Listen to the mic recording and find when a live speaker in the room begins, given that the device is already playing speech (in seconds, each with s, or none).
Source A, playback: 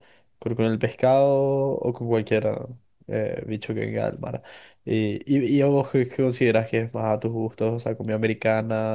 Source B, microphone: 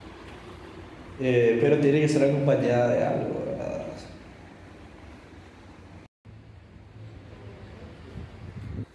1.2 s